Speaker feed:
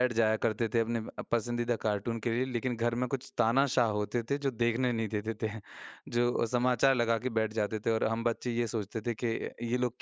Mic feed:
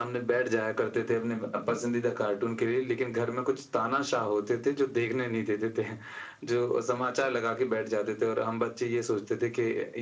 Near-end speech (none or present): none